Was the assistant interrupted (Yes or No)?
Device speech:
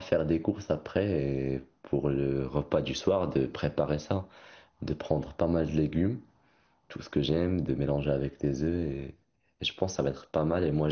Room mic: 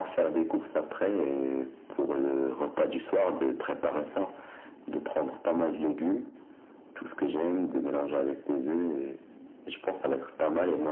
No